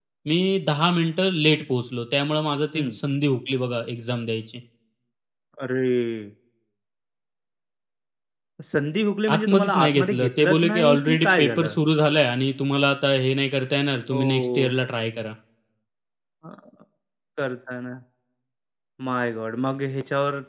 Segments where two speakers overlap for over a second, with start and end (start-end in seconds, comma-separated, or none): 9.3-11.8